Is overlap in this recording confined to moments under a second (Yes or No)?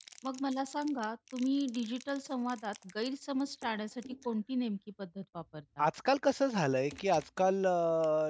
Yes